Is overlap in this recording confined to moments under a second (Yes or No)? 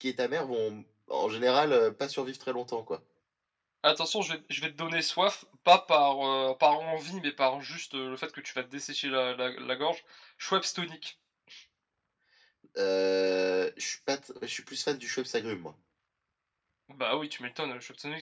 Yes